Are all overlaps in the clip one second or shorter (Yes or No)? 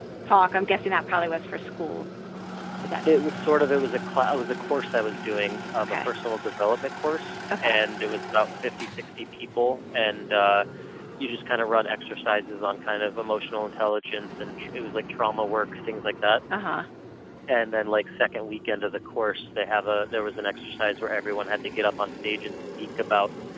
Yes